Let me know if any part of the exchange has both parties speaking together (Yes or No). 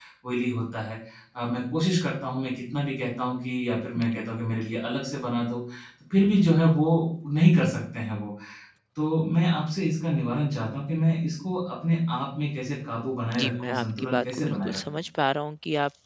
Yes